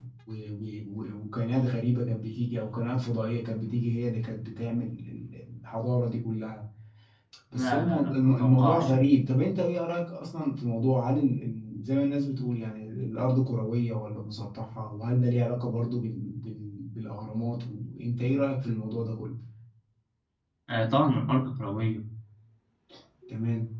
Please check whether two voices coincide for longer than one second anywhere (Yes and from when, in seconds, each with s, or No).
Yes, from 7.5 s